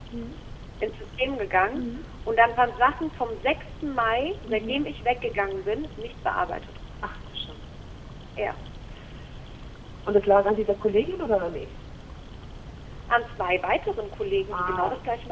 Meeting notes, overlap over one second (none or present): none